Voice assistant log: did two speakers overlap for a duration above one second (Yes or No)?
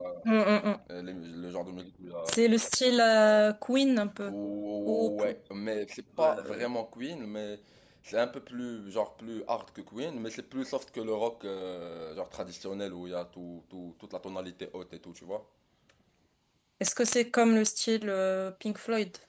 No